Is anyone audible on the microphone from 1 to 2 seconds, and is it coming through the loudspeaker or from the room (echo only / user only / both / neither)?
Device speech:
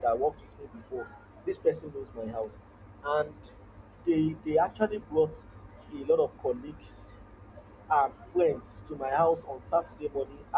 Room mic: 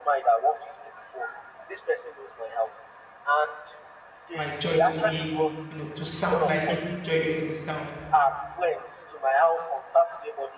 echo only